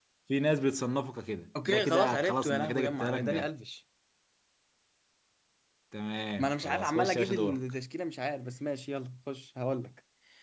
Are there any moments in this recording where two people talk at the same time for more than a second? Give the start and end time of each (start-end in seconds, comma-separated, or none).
1.7-3.5, 6.4-7.6